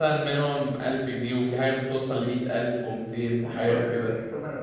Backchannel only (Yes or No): No